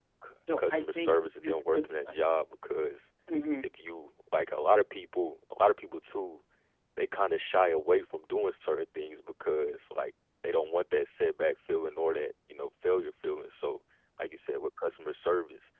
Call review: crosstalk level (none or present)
present